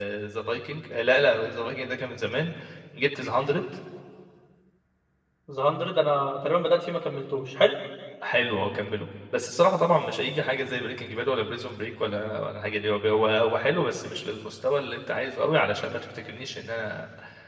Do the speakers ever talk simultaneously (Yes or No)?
No